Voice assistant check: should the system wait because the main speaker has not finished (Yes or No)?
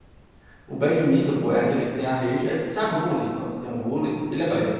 Yes